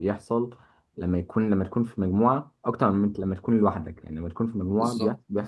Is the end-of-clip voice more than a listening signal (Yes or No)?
No